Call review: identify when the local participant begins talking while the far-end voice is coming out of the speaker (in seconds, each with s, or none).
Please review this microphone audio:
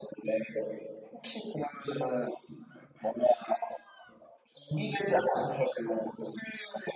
none